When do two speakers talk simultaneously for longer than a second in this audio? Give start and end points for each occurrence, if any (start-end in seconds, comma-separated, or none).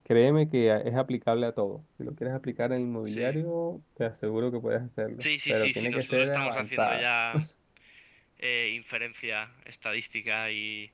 5.2-7.0